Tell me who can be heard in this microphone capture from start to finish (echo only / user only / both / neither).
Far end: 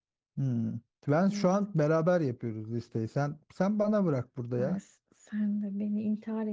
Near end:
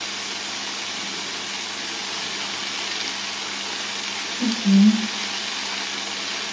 user only